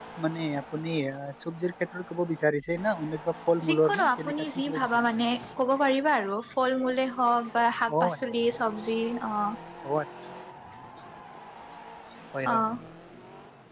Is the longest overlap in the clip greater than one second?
Yes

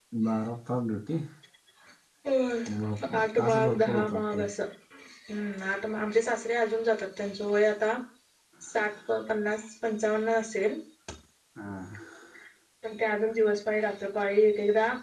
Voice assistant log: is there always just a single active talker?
No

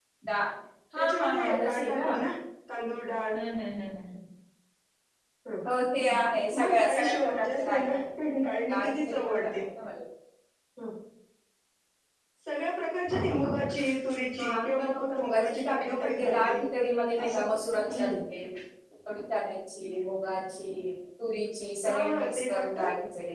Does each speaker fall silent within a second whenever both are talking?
No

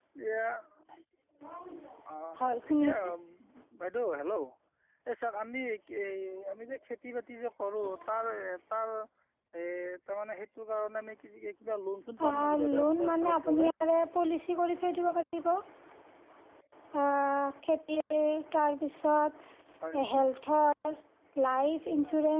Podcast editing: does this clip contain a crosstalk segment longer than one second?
Yes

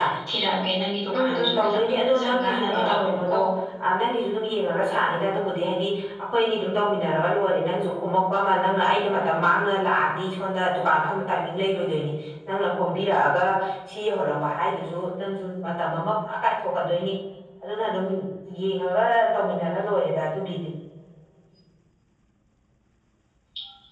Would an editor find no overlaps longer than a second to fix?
No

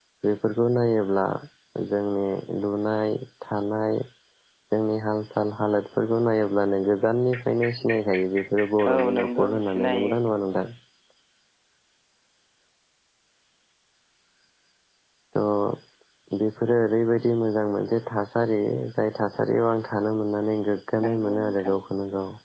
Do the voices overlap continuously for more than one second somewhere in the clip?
Yes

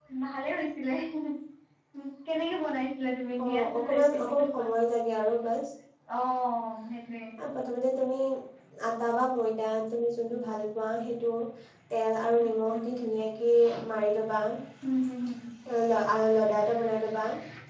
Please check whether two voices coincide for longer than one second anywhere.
Yes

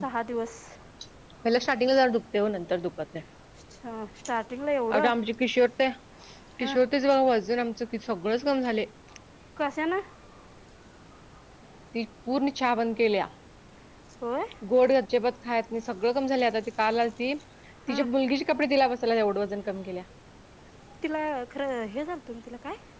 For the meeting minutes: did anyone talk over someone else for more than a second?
No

